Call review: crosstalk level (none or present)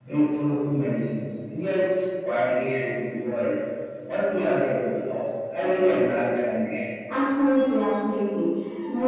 none